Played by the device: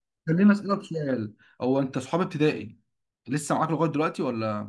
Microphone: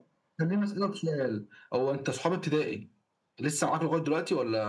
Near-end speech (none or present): none